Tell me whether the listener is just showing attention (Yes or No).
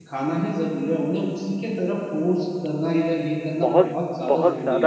No